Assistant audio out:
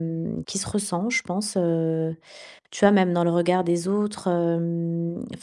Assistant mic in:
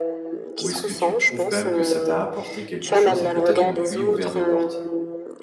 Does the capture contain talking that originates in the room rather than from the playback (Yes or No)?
Yes